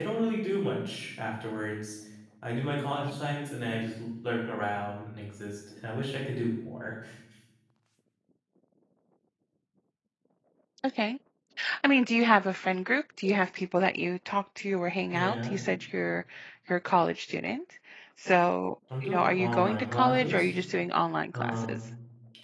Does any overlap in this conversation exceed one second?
Yes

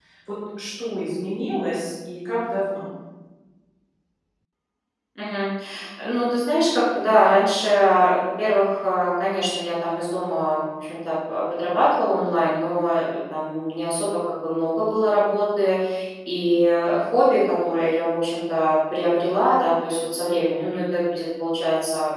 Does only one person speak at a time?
Yes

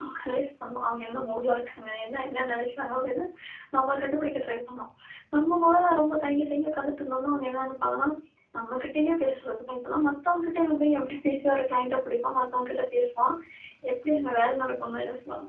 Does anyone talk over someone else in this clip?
No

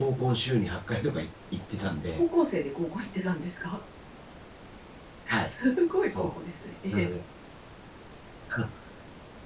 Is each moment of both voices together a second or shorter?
Yes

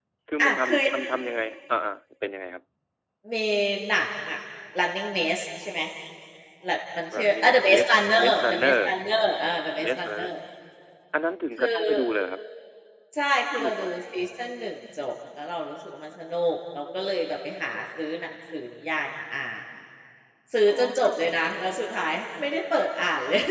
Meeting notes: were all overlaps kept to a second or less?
No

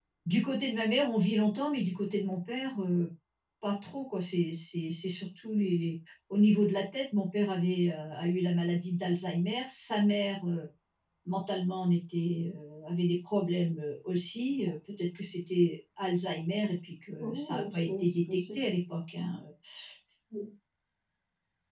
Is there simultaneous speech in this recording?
Yes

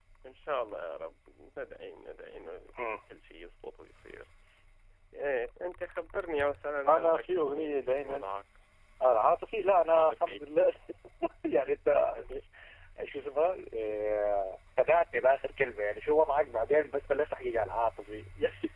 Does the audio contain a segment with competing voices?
Yes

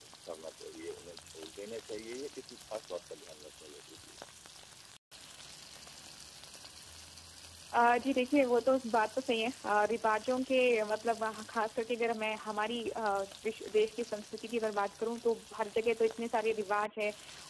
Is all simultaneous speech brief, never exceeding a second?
Yes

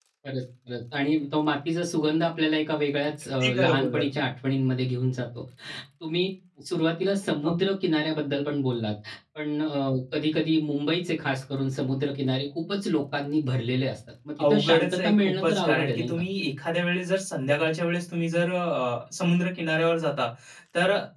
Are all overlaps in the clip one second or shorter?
No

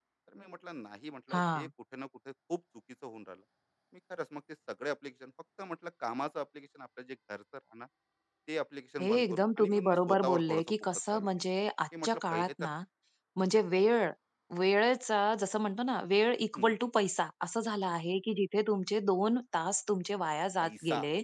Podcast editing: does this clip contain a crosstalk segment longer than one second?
Yes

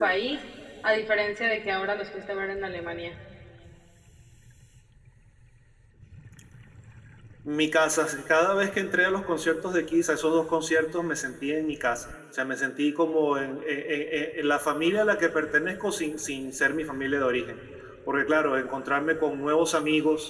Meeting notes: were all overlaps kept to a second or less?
Yes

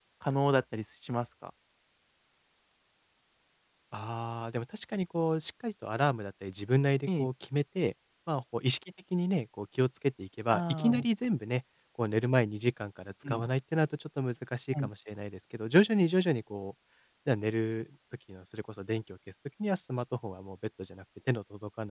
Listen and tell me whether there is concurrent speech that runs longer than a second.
No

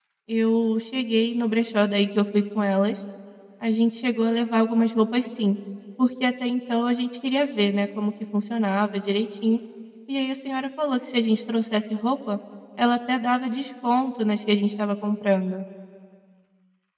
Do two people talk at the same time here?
No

